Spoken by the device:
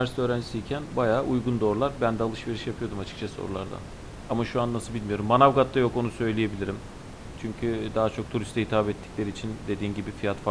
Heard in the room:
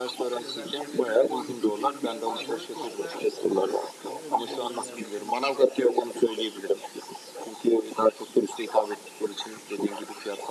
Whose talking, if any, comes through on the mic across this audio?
both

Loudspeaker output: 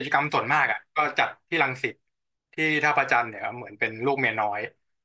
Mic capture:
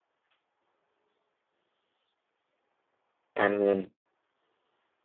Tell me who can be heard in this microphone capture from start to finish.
user only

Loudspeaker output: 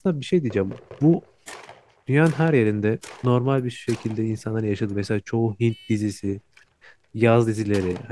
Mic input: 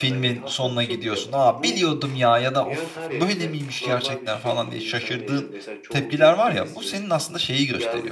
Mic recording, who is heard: both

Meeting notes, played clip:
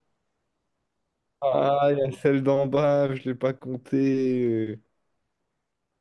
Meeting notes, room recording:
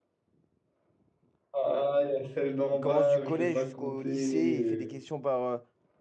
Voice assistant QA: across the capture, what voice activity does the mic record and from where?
both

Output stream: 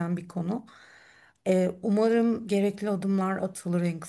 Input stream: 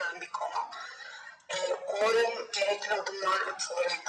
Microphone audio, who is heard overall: echo only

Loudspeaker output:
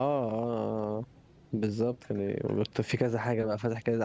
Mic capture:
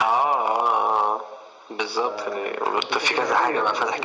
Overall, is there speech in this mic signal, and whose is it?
both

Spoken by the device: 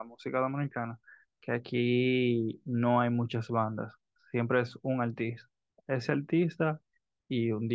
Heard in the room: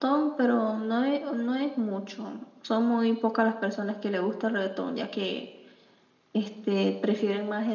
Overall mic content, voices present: user only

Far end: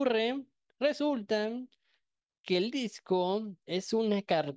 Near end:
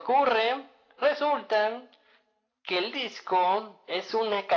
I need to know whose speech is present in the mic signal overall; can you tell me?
echo only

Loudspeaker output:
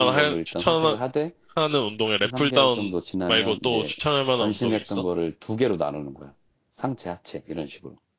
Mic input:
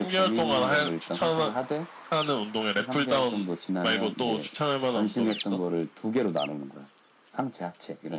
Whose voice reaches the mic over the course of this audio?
echo only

